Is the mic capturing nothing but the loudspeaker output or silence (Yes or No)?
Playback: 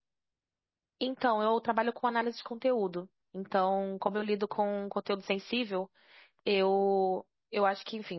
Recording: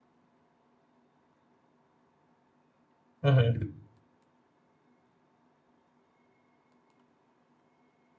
No